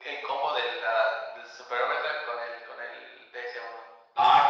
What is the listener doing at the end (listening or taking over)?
taking over